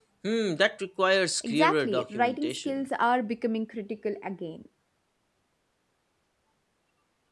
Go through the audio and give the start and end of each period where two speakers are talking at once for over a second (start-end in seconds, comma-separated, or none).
1.4-2.8